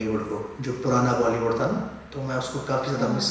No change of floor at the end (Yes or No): No